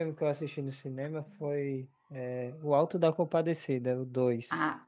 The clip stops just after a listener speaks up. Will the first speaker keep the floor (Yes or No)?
No